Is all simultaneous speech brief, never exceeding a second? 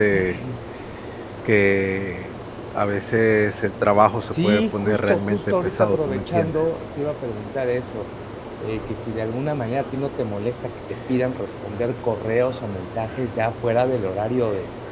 No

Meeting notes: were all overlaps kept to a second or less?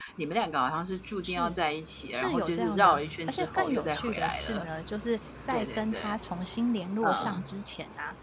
No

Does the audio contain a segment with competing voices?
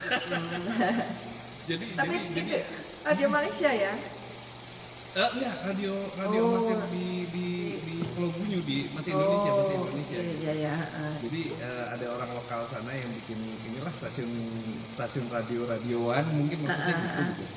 Yes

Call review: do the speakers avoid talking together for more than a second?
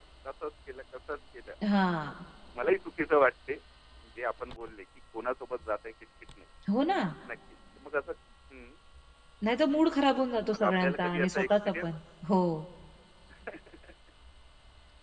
No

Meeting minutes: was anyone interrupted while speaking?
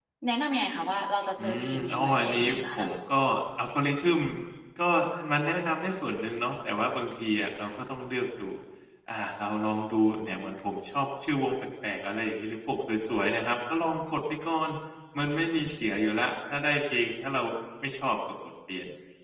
Yes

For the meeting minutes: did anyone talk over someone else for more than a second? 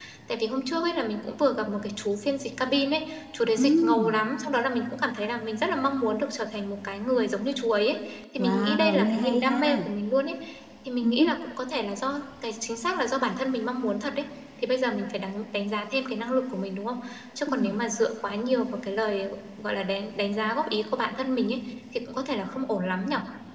Yes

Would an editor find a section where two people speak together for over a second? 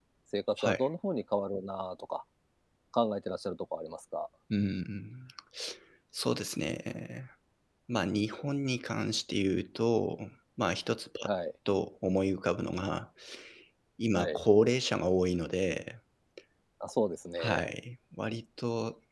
No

